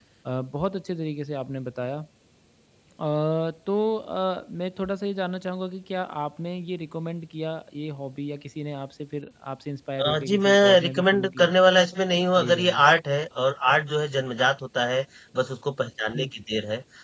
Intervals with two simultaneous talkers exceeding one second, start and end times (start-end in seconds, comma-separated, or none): 10.1-11.4